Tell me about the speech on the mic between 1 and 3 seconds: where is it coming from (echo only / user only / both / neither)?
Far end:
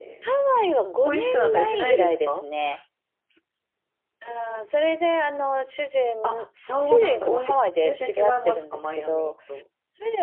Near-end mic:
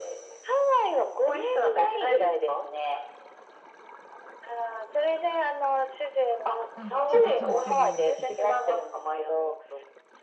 echo only